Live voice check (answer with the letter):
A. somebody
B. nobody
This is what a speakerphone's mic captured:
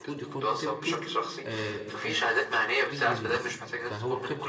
A